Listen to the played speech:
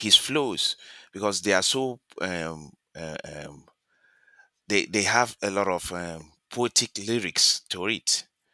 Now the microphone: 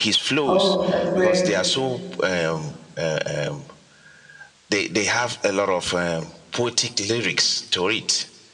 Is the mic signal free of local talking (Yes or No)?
No